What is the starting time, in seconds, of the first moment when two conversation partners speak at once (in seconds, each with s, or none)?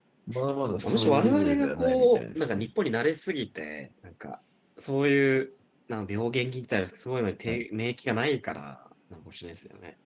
0.8 s